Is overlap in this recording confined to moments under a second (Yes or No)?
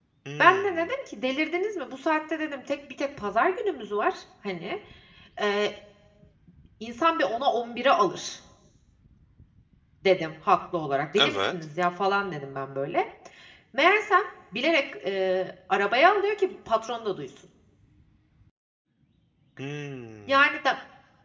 Yes